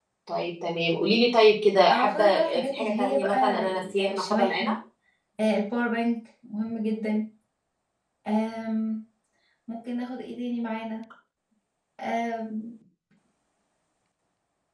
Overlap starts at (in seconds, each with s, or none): 1.9 s